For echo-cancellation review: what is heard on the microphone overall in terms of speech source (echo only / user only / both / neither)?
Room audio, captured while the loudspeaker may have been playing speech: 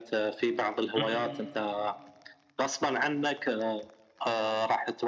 both